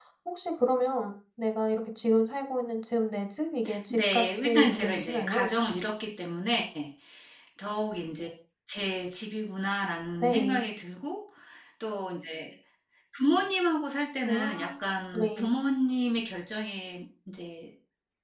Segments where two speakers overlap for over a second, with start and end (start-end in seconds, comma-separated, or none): 3.9-5.5